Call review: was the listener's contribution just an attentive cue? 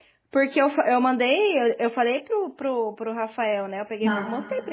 Yes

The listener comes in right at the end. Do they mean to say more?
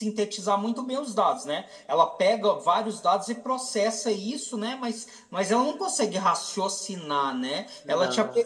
No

